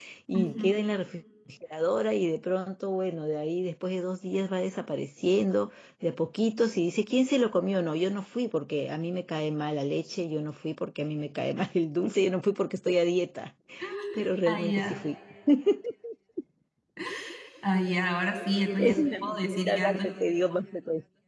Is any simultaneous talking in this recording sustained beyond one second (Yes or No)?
Yes